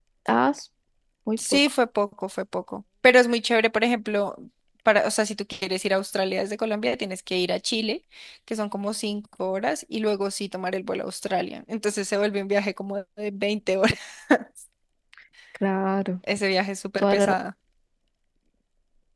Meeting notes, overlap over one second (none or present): none